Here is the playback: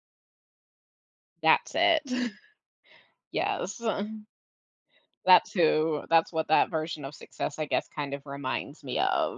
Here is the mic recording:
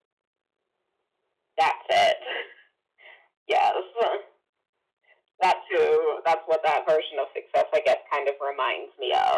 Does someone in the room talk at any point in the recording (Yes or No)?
No